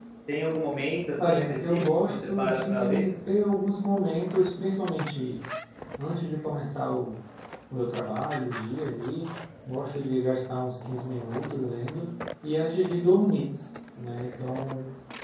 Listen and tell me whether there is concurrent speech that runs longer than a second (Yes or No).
Yes